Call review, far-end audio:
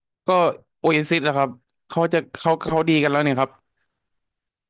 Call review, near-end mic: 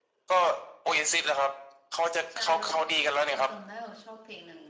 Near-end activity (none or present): present